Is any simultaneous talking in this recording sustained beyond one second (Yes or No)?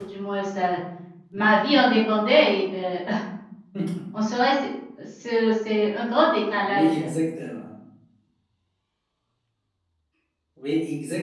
No